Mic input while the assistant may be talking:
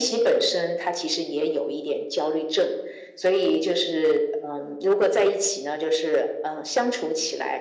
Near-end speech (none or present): none